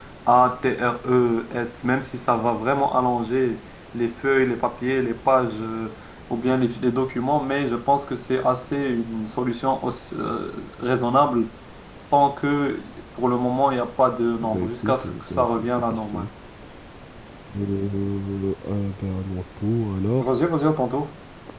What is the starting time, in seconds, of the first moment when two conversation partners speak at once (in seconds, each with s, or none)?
14.4 s